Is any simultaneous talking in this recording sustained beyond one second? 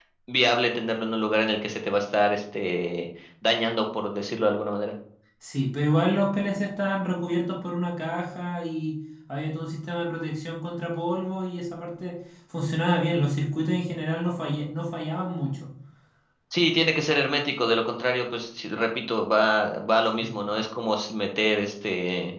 No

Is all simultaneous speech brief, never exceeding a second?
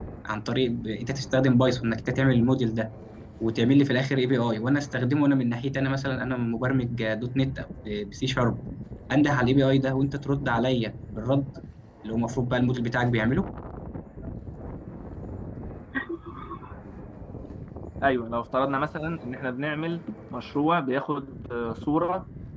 Yes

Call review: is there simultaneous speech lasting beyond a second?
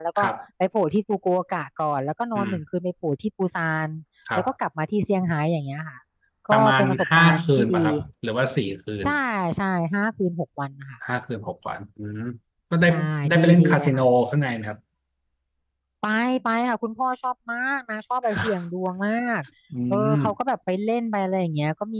Yes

